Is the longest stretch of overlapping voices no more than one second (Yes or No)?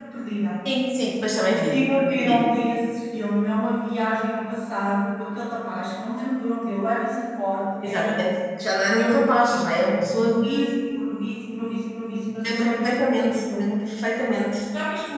No